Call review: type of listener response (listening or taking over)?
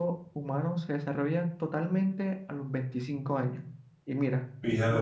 listening